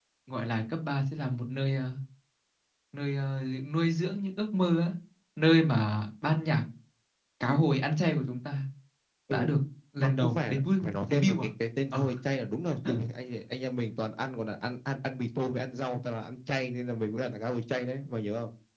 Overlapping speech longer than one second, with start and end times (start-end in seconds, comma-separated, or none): 10.0-11.5